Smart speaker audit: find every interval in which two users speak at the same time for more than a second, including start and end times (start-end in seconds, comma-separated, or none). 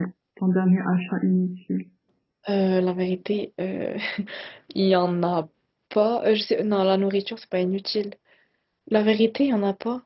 none